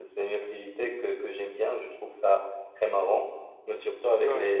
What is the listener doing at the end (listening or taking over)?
listening